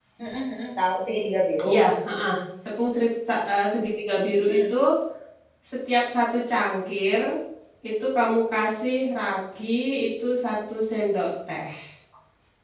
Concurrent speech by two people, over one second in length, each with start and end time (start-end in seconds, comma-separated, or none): none